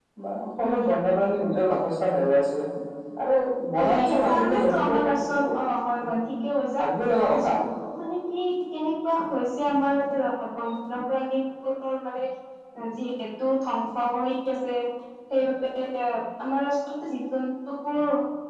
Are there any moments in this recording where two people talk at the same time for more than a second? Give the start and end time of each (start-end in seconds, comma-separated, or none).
4.0-5.4